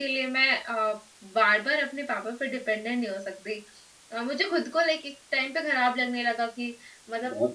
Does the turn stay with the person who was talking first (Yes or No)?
Yes